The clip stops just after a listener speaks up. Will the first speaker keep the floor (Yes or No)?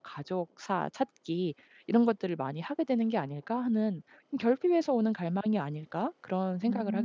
No